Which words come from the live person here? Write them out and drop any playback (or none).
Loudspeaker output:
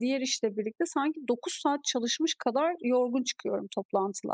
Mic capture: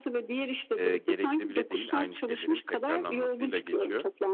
eee, gerekli bile değil, aynı şeylerin tekrarlanmasıyla geçiyor